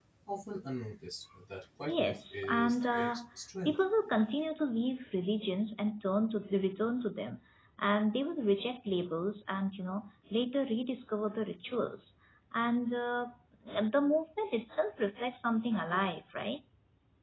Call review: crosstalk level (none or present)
present